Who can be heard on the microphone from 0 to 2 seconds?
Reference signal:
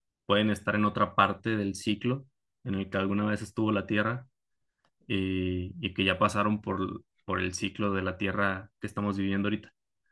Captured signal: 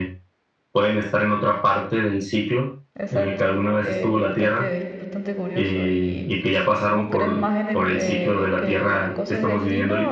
echo only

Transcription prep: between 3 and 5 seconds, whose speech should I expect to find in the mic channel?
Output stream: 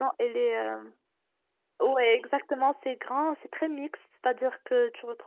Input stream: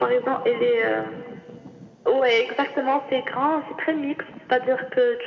echo only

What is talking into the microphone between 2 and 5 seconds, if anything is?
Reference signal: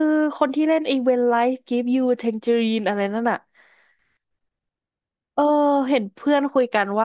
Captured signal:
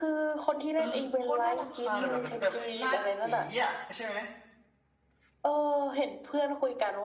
both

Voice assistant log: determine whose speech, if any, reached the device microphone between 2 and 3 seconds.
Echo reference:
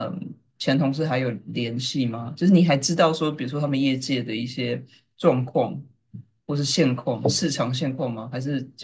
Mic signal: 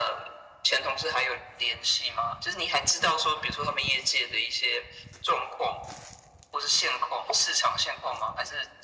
echo only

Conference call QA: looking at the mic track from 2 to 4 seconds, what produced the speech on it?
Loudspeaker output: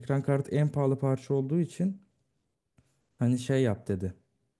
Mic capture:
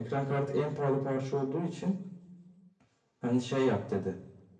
echo only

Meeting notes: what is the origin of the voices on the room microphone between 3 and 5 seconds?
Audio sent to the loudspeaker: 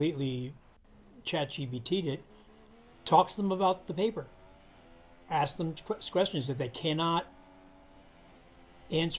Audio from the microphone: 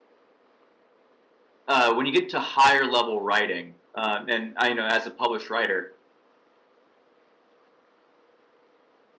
user only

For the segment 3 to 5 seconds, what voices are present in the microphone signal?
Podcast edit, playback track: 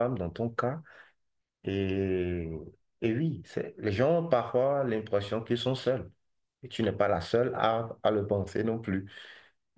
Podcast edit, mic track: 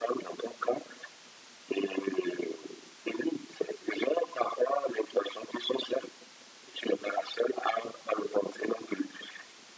echo only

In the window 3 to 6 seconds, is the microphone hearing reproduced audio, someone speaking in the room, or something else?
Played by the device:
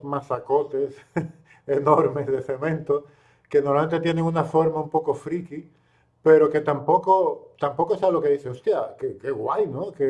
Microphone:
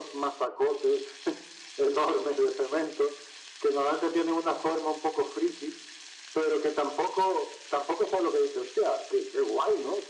echo only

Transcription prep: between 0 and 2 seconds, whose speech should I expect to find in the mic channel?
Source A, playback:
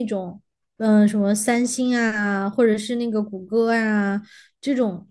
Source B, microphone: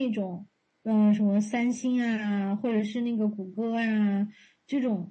echo only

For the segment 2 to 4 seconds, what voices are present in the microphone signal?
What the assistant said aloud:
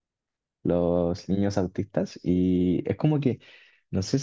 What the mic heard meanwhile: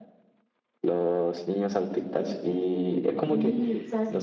both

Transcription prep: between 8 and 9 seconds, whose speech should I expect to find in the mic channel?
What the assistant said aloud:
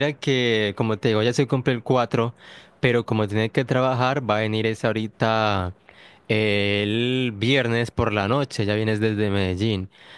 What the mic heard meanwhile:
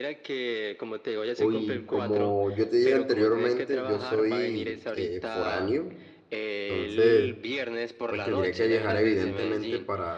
both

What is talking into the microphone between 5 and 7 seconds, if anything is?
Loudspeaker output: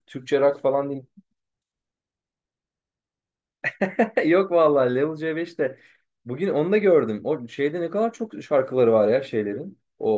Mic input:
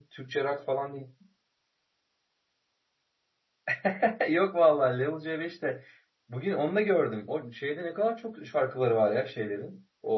echo only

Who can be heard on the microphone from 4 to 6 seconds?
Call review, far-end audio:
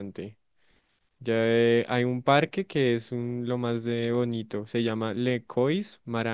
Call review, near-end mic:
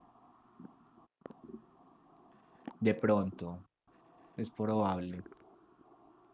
user only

